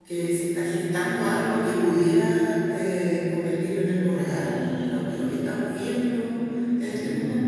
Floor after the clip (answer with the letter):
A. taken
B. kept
A